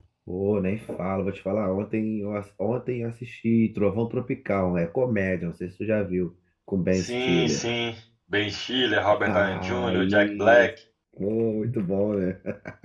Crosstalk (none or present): present